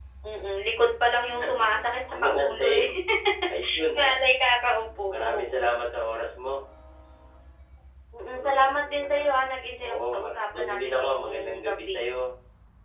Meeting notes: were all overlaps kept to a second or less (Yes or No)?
No